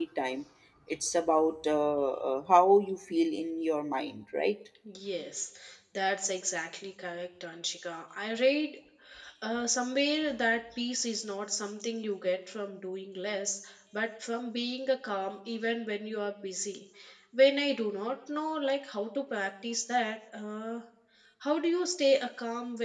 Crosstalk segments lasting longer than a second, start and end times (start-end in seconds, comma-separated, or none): none